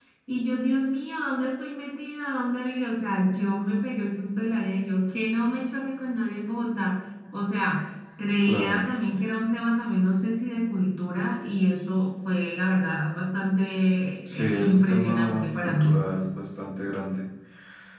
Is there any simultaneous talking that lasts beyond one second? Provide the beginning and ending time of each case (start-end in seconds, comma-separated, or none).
14.6-16.0